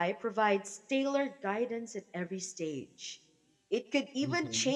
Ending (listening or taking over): listening